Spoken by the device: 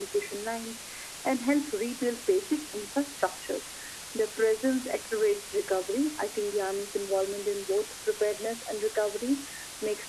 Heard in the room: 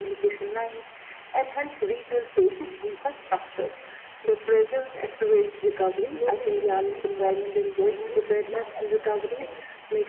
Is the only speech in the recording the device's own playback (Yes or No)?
No